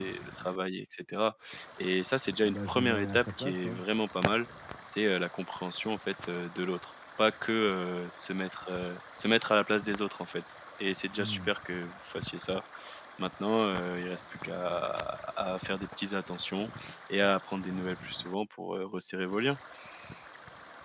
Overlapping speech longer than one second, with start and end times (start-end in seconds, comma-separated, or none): 2.4-3.8